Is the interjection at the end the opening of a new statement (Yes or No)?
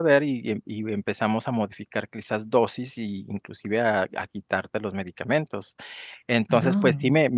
No